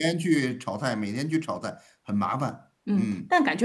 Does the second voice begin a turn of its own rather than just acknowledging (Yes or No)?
Yes